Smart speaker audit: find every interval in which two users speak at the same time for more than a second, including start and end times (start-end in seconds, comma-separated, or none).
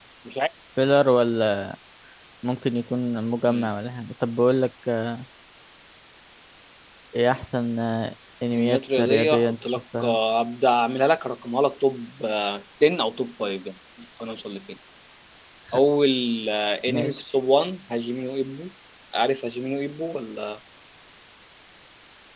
8.5-10.2